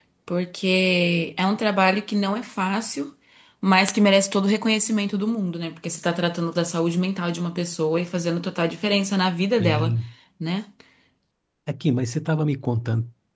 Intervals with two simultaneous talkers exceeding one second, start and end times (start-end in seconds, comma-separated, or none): none